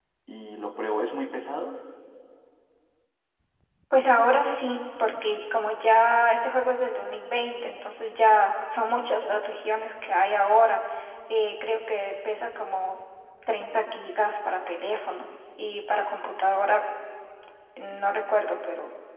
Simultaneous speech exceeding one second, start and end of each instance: none

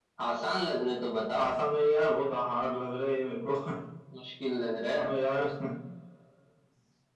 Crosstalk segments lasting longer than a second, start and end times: none

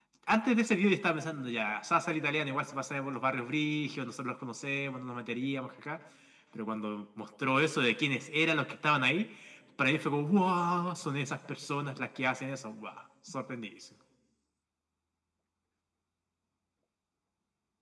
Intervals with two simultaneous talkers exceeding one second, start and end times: none

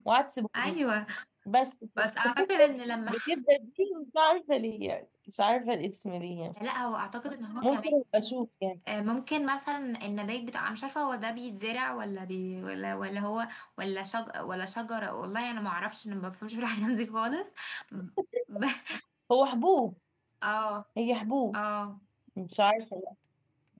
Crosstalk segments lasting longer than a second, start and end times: none

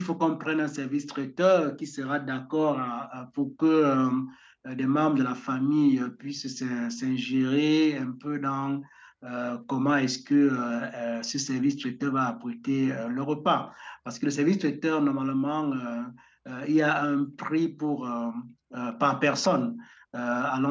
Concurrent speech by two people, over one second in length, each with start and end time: none

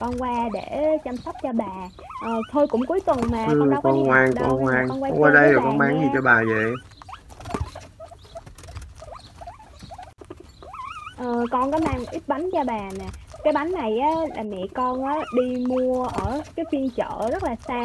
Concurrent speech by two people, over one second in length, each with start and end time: 3.5-6.2

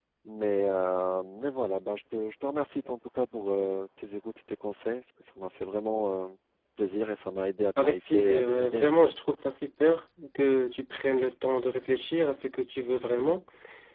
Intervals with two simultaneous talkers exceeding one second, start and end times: 7.8-9.0

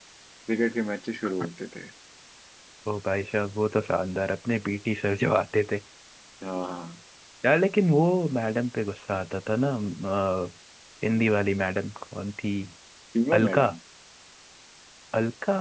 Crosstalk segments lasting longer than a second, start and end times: none

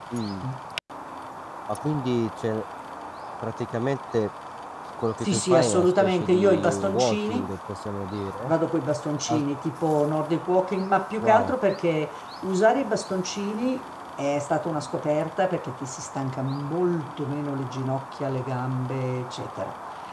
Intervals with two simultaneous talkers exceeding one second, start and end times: 5.2-7.5

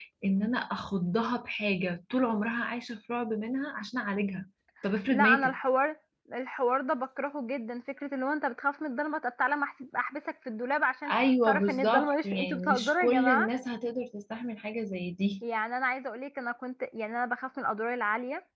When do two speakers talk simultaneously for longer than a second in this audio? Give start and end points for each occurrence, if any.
11.1-13.5

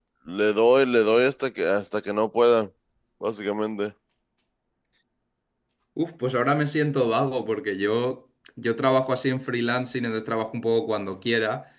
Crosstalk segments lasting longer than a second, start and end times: none

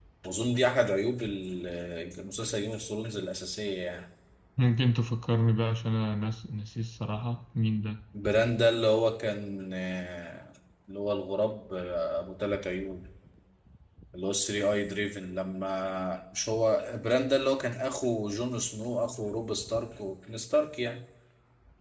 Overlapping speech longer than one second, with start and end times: none

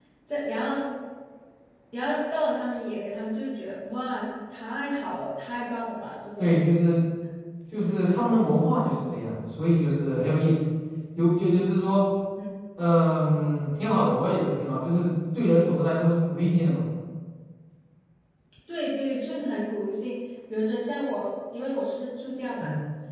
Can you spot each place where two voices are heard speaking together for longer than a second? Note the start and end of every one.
none

